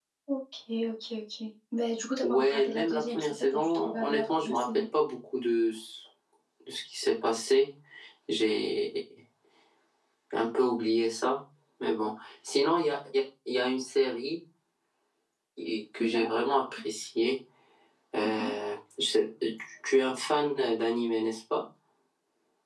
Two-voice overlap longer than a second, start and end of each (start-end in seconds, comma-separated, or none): 2.2-4.8